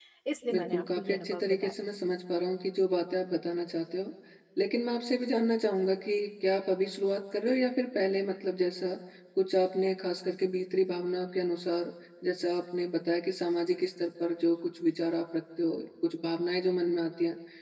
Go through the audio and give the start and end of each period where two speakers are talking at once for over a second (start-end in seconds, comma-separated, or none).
0.5-1.7